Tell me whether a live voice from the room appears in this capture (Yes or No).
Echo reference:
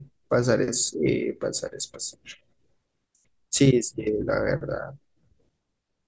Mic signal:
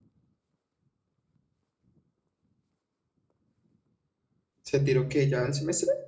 Yes